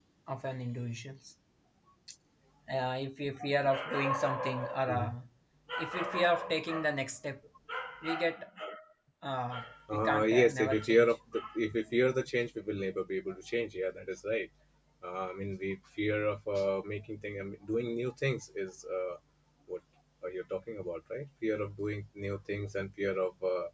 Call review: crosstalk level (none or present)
present